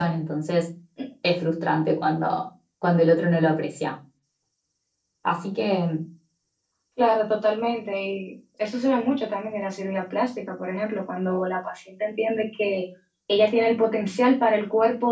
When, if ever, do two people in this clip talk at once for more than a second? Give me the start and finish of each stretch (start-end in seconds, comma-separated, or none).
none